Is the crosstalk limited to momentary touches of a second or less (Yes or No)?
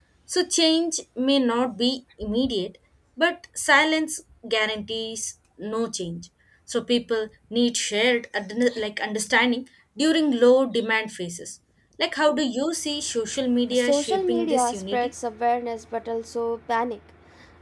No